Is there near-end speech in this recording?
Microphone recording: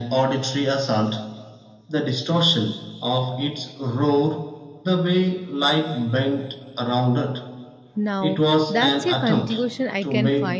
Yes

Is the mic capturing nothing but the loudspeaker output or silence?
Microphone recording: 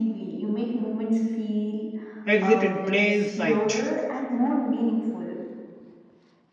No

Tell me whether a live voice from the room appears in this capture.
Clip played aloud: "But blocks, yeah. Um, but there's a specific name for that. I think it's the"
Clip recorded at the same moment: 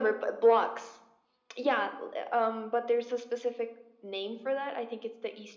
No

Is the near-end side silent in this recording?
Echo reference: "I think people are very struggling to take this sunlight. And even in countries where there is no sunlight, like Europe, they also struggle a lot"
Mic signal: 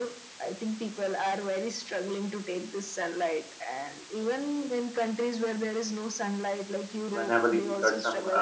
No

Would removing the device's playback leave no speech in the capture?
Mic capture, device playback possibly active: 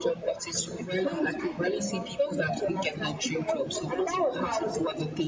No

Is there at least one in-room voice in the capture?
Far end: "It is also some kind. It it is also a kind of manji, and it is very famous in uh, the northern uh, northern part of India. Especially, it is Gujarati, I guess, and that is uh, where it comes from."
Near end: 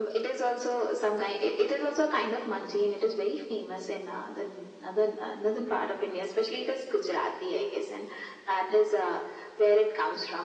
No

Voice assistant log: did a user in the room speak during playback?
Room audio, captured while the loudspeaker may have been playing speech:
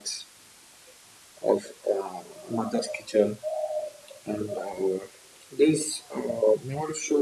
No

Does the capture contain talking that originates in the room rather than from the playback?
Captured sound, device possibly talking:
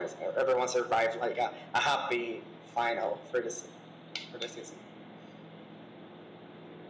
No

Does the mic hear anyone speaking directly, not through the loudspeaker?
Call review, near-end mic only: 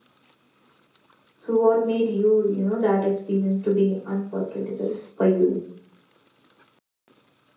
Yes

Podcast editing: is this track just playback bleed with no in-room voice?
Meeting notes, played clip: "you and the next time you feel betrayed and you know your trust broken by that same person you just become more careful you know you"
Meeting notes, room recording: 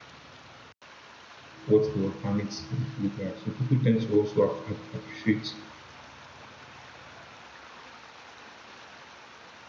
No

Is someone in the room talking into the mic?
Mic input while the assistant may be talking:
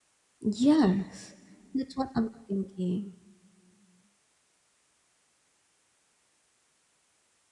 Yes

